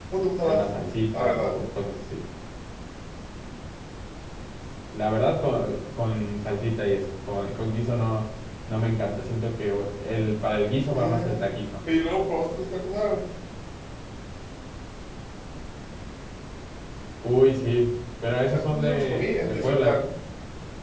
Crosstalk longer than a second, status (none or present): present